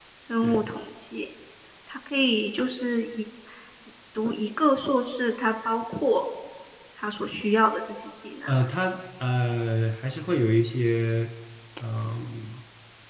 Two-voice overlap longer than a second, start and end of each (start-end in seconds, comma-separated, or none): none